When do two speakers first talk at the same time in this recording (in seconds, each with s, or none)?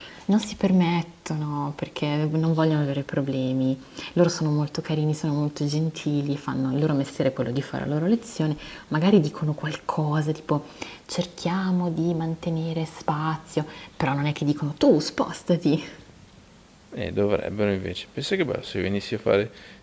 none